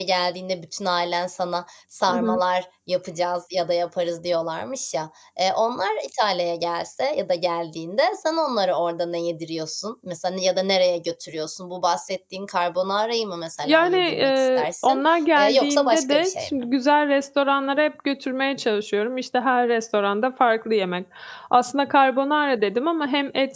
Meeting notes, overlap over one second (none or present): present